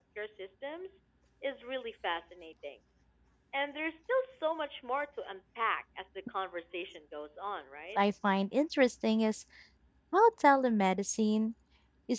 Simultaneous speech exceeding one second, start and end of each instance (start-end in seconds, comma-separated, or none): none